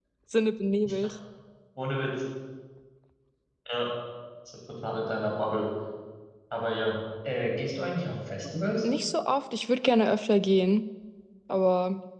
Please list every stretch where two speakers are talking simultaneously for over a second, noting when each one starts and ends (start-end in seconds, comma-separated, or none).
none